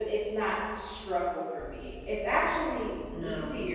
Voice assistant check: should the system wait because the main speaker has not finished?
Yes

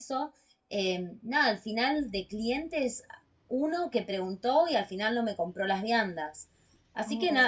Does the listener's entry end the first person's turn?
No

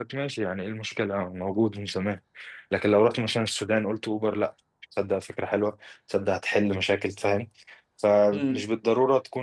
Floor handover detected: No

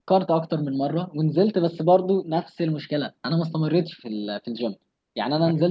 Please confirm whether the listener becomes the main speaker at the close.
No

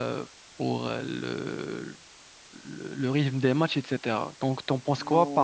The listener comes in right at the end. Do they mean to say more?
Yes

